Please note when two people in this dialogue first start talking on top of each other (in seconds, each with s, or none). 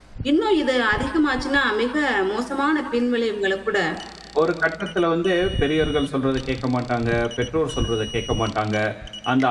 none